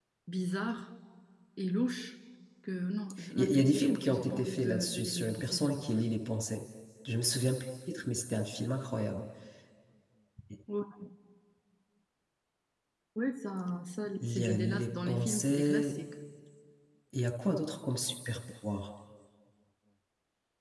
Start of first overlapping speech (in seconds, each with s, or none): 3.4 s